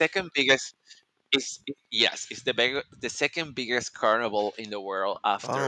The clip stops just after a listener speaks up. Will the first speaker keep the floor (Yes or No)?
No